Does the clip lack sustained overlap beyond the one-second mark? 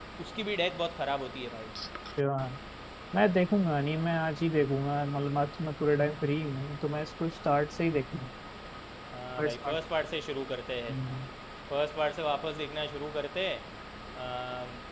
Yes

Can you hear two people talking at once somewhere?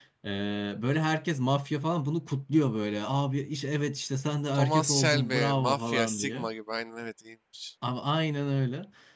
Yes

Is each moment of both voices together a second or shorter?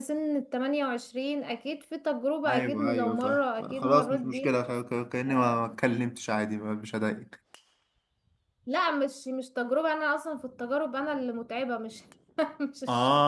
No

